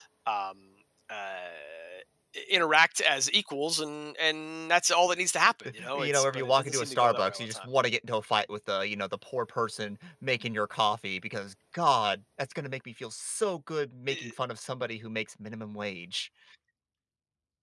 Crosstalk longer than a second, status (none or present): present